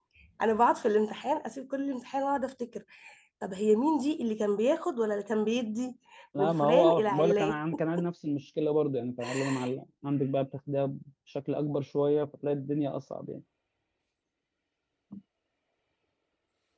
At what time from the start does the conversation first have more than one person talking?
6 s

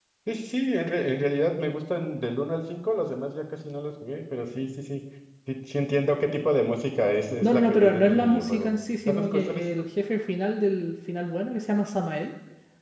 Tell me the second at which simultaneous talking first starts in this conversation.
7 s

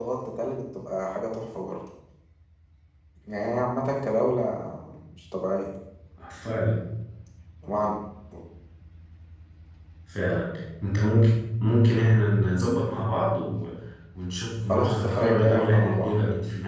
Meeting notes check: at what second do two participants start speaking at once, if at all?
15 s

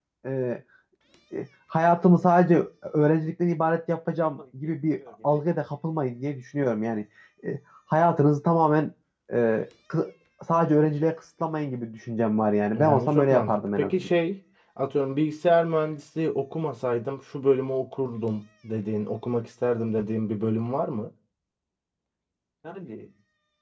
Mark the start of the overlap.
13 s

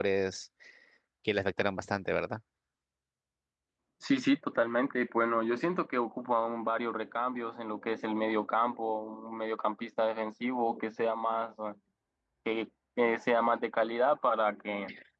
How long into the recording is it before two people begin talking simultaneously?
none

